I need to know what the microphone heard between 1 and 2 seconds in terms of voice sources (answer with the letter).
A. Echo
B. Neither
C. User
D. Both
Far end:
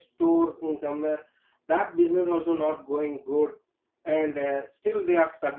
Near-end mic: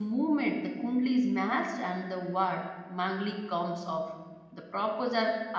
C